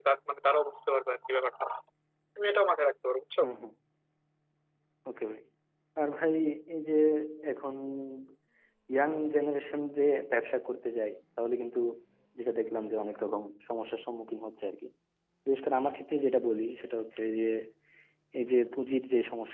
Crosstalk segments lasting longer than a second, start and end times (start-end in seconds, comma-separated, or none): none